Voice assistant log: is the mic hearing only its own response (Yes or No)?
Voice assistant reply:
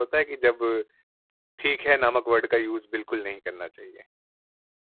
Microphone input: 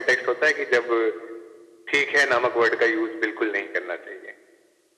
Yes